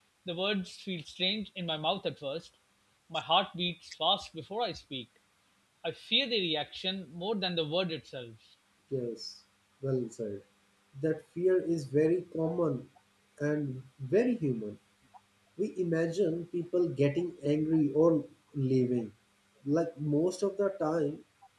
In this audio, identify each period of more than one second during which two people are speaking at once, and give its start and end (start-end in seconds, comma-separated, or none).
none